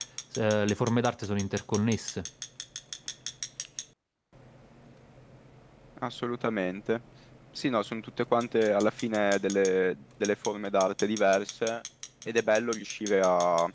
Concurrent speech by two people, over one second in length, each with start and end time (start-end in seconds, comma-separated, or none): none